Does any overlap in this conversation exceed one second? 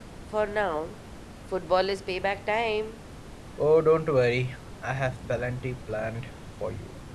No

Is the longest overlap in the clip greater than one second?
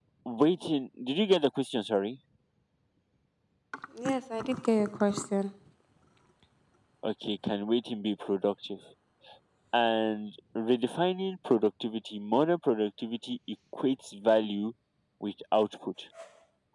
No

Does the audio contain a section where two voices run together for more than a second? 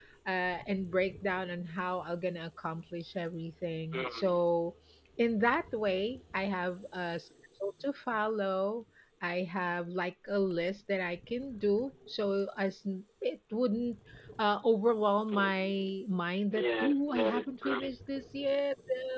Yes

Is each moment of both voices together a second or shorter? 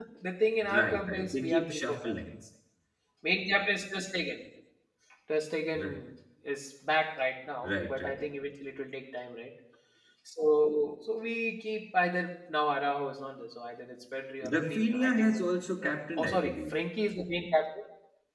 No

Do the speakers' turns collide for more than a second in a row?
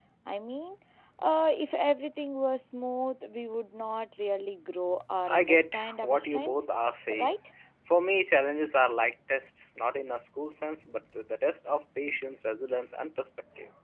Yes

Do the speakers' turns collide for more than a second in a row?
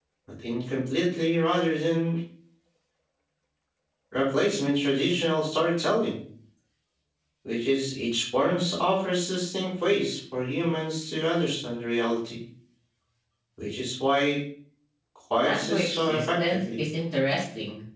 Yes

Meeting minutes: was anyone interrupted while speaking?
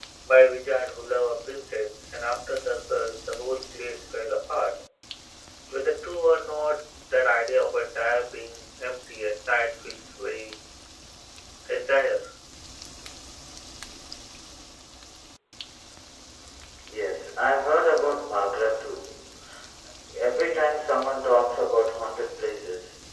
No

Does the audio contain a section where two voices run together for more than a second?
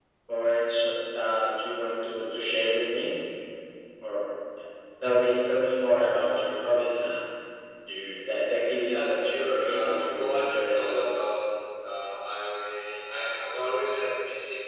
Yes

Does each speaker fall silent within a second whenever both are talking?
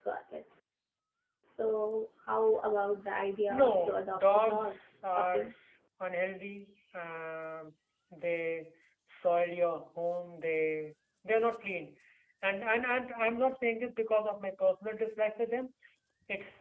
No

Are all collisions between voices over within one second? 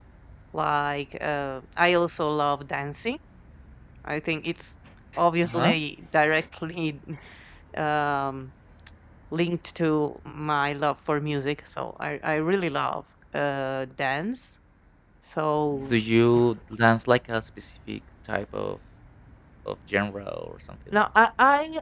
Yes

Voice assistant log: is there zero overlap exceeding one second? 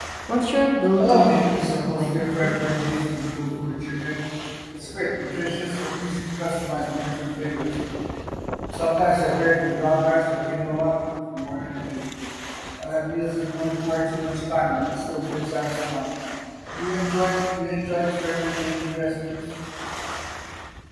No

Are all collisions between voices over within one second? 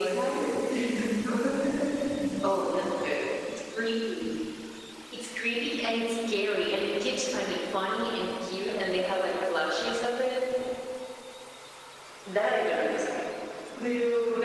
Yes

